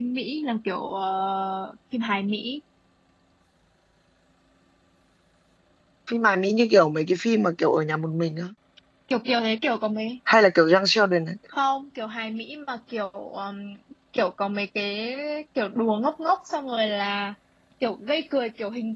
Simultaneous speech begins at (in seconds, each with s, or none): none